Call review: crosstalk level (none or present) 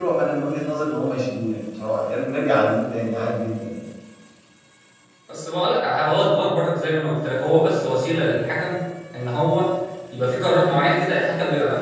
none